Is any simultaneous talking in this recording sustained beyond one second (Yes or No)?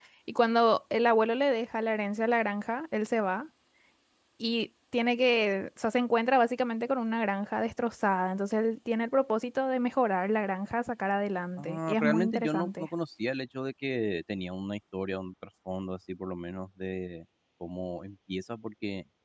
Yes